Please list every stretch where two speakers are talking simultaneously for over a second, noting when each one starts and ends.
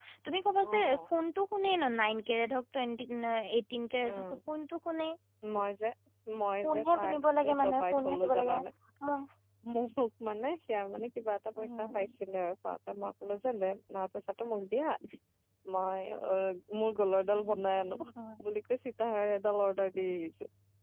6.6-8.6

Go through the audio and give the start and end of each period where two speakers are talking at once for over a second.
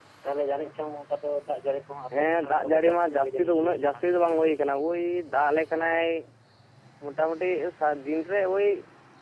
2.2-4.0

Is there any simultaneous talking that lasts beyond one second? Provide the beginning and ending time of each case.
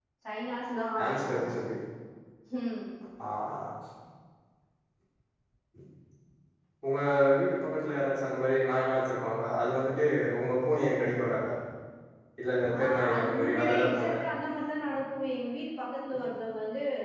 12.7-14.1

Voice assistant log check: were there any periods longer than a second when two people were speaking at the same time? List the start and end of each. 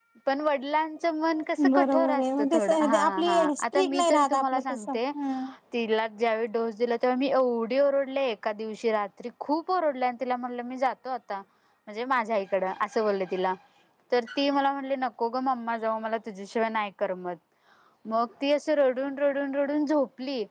1.6-5.0

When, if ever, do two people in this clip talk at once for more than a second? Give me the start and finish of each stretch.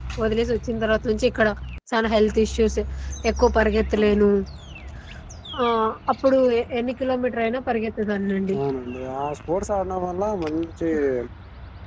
none

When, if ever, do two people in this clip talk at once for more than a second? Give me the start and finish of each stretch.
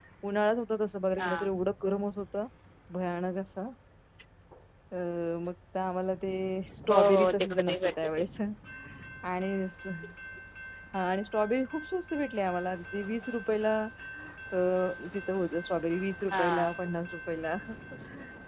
6.9-8.2

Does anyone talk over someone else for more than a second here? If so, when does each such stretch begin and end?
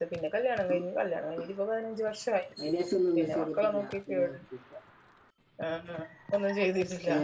3.2-4.4

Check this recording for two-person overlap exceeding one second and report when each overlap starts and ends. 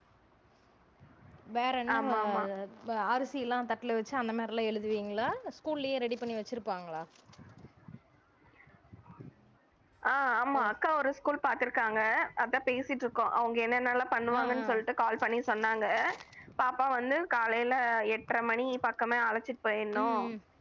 none

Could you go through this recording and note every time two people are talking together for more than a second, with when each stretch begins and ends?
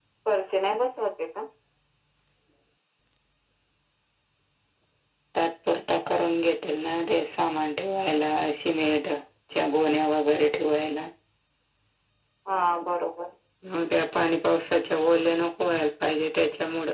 none

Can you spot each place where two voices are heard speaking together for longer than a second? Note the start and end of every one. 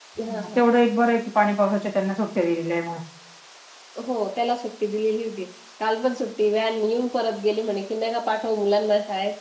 none

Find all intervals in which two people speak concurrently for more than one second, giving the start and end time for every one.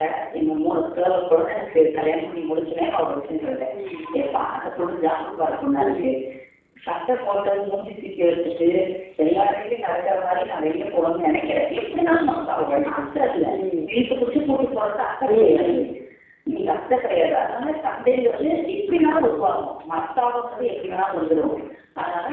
none

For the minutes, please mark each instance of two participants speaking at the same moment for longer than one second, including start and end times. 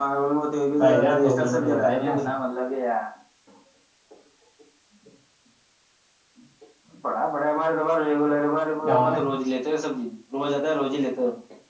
0.8-2.1

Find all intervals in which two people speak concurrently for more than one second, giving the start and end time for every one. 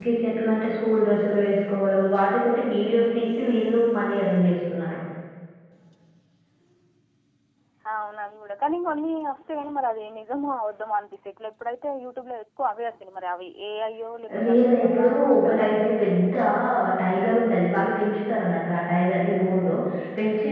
14.4-15.8

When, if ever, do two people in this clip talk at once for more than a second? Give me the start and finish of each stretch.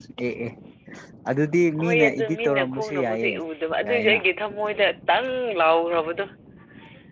1.8-3.4

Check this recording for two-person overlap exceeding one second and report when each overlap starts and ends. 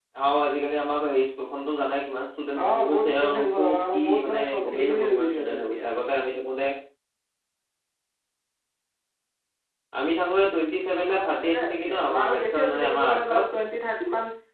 2.6-5.8, 11.1-13.4

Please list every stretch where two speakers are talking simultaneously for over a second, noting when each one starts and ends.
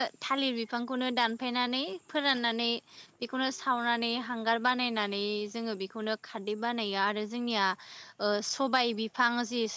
none

